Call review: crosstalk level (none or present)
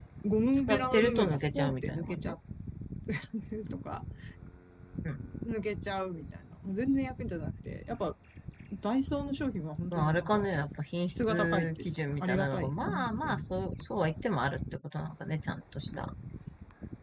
present